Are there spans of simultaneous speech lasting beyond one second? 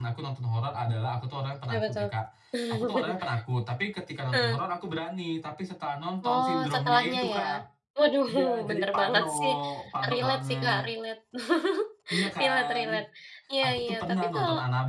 Yes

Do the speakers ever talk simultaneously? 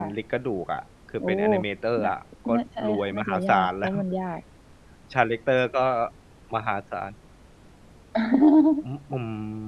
Yes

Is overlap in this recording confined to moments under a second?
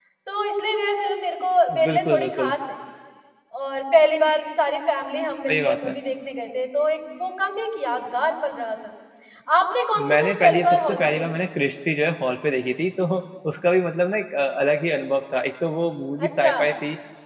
No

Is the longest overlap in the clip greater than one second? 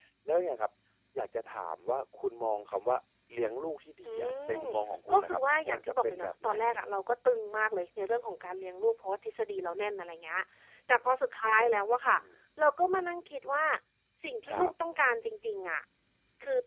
Yes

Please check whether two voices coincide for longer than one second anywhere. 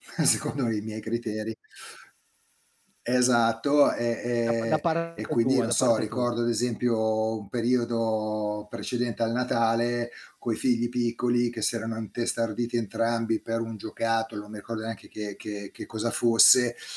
Yes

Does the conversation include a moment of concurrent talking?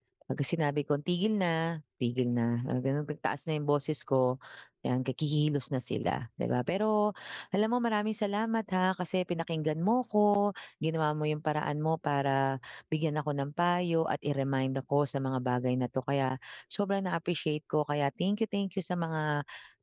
No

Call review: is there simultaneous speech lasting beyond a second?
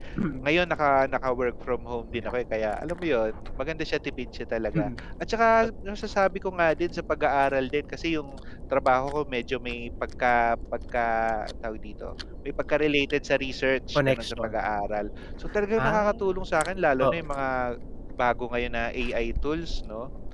No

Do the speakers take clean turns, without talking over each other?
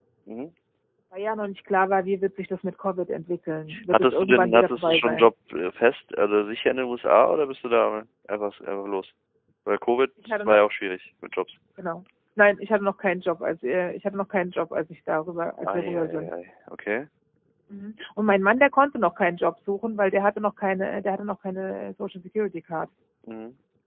No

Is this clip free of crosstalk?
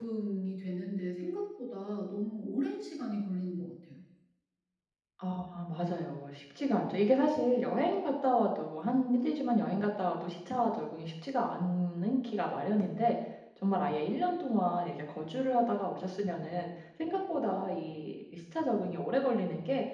Yes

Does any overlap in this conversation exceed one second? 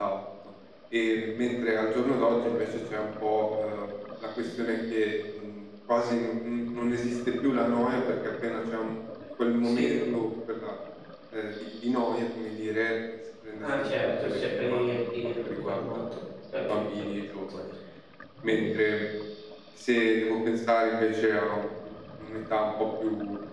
Yes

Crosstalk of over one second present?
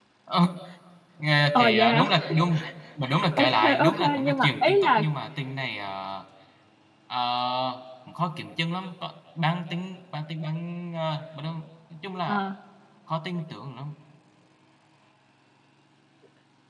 Yes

